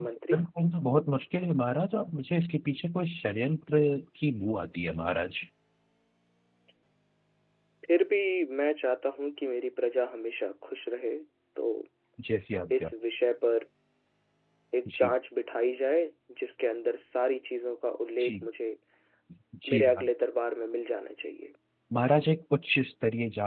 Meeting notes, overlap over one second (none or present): none